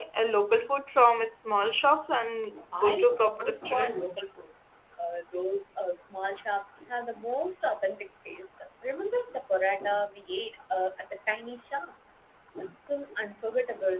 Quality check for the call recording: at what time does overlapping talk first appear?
2.7 s

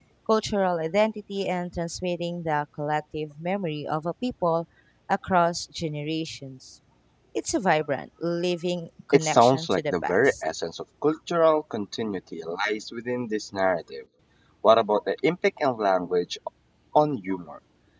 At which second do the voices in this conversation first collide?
9.1 s

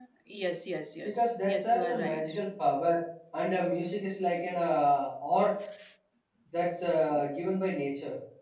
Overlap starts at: 1.0 s

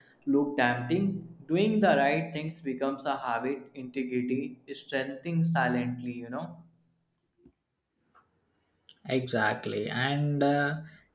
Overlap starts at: none

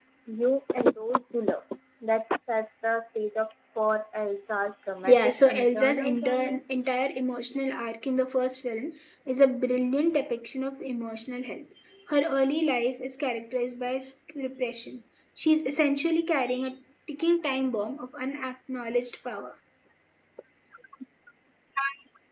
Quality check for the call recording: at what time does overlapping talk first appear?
5.0 s

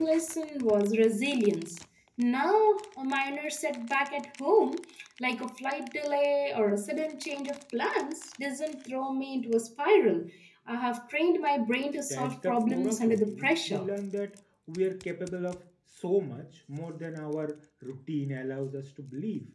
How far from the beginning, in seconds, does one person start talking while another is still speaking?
12.1 s

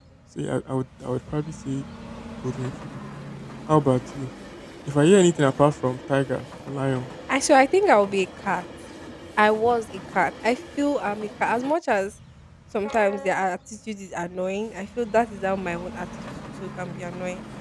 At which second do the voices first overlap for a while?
none

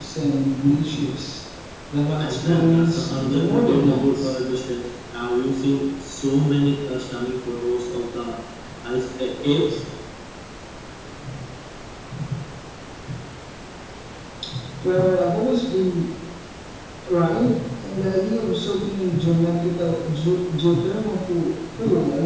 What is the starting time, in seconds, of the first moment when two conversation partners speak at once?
2.2 s

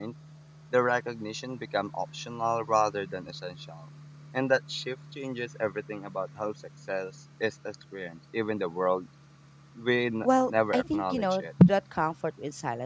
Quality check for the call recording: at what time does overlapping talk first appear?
10.2 s

